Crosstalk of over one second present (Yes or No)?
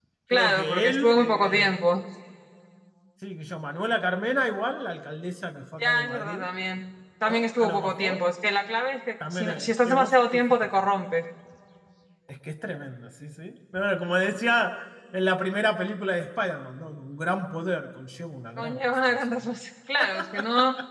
Yes